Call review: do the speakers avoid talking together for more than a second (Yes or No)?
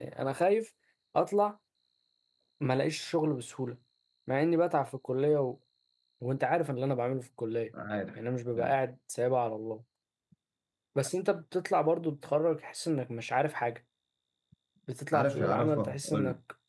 No